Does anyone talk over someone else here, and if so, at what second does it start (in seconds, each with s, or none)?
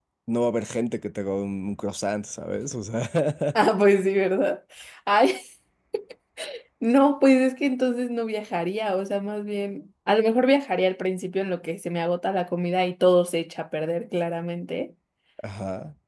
none